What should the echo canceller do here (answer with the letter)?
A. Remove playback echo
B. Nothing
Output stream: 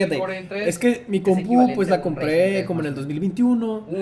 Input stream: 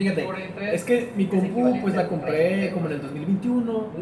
A